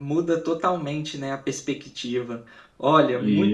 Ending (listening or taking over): listening